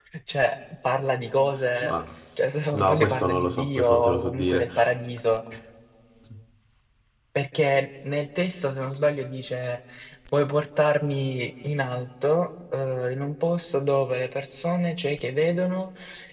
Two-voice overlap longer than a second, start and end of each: 2.7-4.7

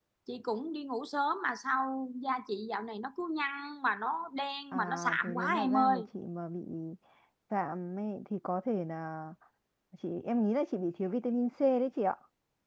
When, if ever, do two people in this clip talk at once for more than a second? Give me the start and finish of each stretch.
4.7-6.0

